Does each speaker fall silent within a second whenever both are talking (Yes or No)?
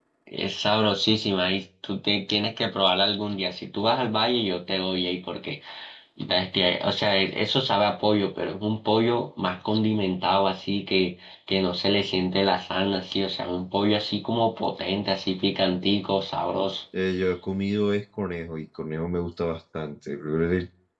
Yes